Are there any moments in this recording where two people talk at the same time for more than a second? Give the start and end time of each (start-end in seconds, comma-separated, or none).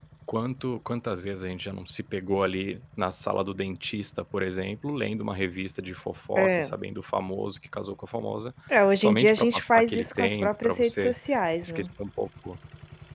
9.0-11.2